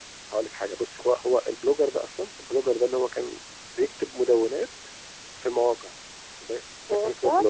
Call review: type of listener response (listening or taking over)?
listening